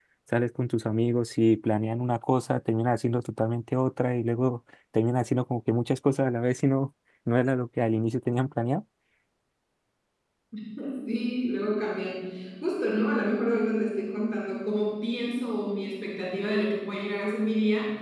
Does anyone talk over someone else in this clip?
No

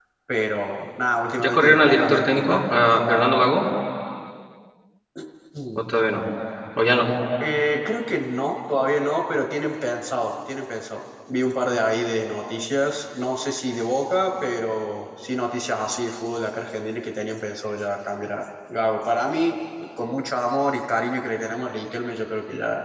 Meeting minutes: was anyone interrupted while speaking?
Yes, from 1.4 s

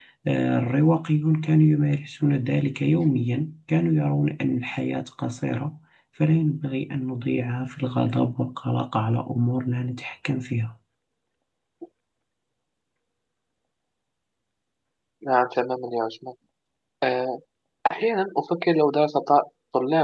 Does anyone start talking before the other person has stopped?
No

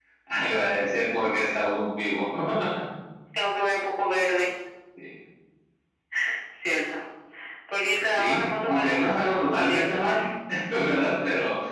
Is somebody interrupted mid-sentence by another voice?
Yes, from 8.0 s

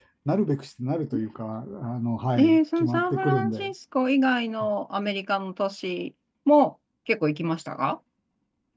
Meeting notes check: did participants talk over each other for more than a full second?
Yes, from 2.4 s

